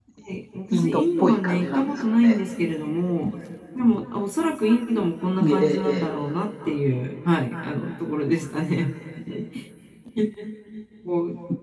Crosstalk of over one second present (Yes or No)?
Yes